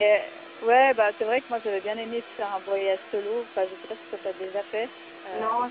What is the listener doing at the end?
taking over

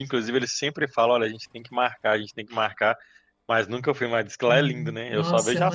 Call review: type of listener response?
taking over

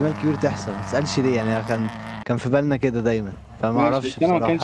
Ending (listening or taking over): taking over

